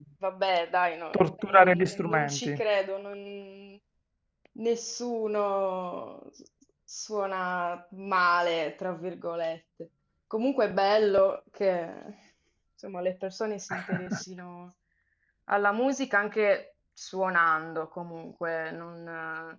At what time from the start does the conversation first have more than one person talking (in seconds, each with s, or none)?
1.1 s